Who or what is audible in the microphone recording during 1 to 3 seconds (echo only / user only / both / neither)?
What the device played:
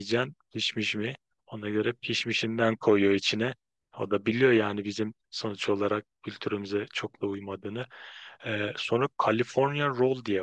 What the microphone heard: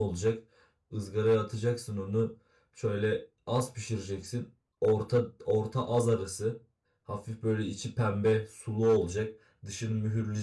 user only